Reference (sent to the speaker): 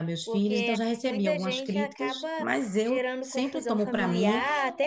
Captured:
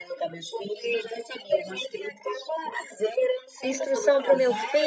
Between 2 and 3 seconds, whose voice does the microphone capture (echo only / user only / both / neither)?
echo only